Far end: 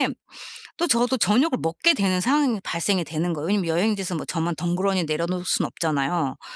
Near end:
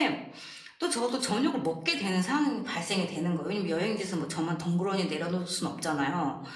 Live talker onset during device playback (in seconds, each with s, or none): none